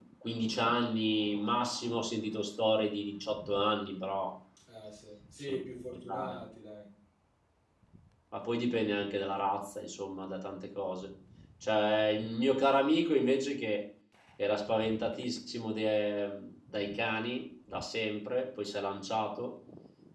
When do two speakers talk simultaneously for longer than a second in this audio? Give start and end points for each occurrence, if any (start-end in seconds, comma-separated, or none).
none